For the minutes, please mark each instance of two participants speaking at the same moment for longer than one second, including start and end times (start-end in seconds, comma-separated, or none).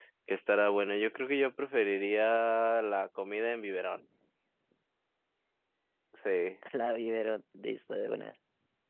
none